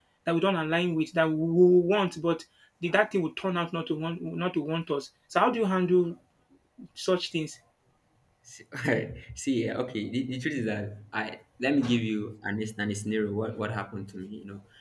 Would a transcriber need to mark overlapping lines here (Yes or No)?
No